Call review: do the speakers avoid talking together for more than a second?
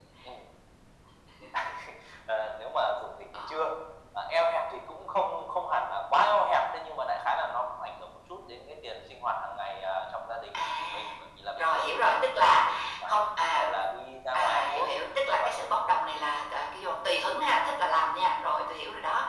No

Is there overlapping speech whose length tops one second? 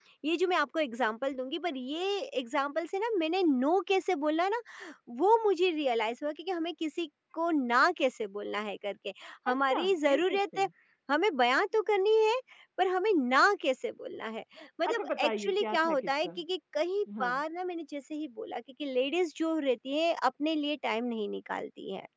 Yes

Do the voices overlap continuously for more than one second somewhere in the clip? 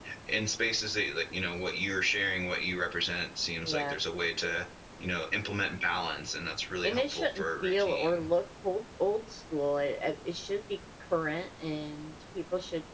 Yes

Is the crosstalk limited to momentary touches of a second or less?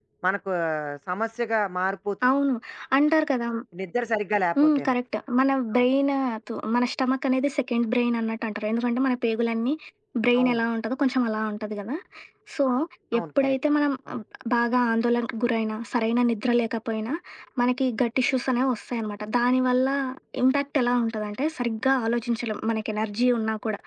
Yes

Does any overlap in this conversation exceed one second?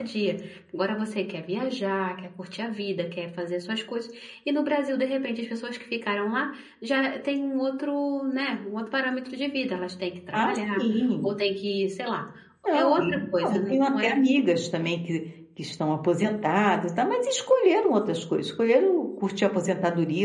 Yes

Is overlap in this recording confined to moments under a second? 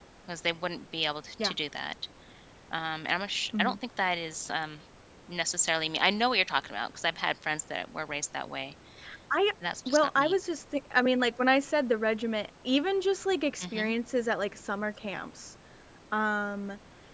Yes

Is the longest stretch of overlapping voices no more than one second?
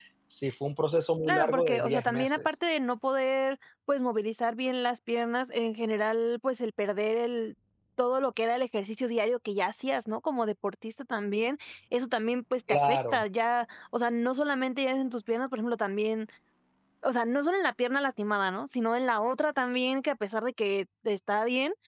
No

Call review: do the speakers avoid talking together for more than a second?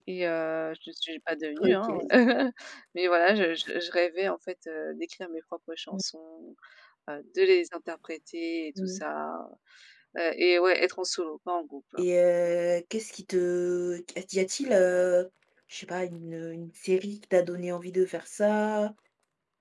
Yes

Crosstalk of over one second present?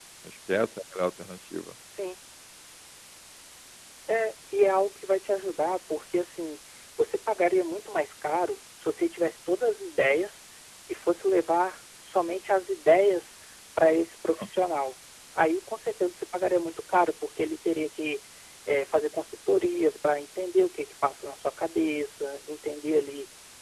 No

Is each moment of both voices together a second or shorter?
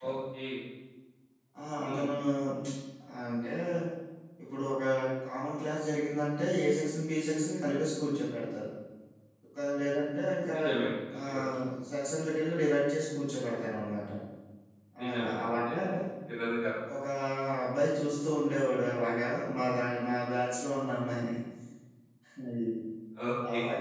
Yes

